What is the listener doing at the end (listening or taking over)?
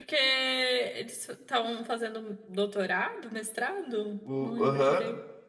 taking over